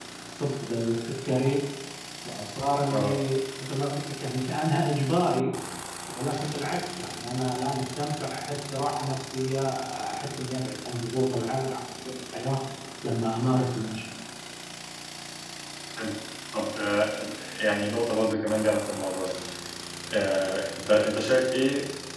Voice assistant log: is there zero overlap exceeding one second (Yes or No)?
Yes